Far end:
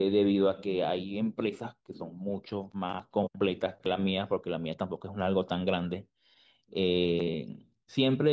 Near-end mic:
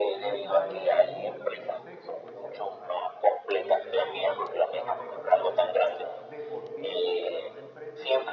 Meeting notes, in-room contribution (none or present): present